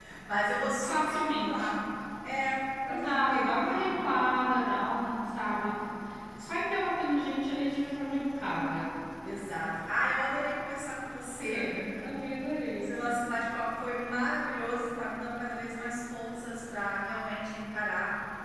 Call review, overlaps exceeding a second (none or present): present